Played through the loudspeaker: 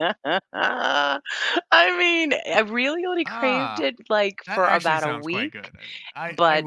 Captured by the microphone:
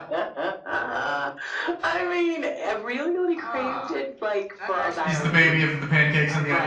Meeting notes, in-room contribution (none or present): present